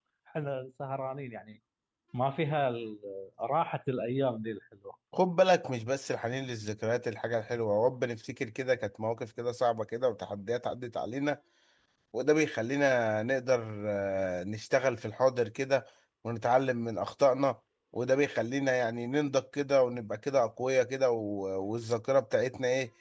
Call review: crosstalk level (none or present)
none